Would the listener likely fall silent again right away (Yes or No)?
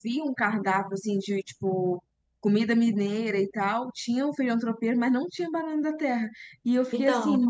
Yes